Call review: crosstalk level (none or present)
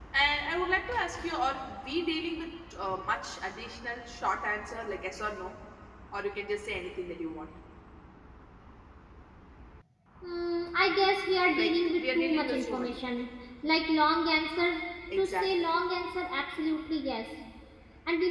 present